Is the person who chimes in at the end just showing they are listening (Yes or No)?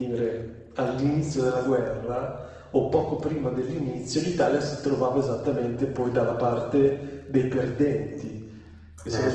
Yes